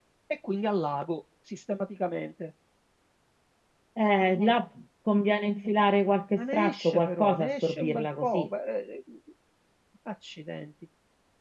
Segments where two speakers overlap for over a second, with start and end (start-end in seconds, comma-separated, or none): 6.3-8.5